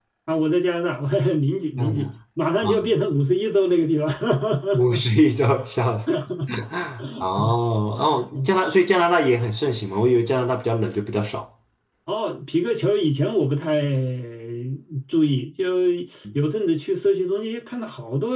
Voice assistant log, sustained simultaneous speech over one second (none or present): none